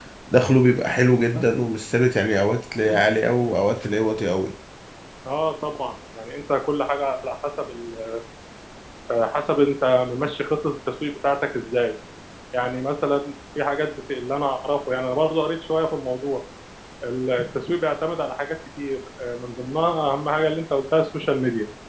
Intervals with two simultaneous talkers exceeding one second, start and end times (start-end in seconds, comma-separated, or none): none